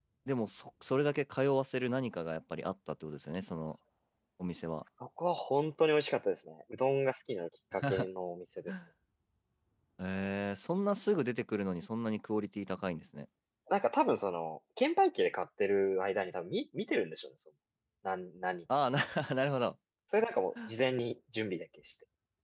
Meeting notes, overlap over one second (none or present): none